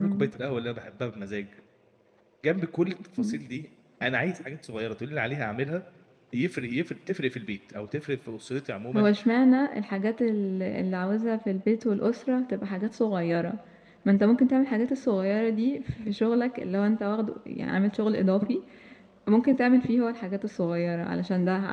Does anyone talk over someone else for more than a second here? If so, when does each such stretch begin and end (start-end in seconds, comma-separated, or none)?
none